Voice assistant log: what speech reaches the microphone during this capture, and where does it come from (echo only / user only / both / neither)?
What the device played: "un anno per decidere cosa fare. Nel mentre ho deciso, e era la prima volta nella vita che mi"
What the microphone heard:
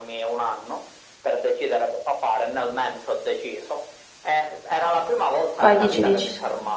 both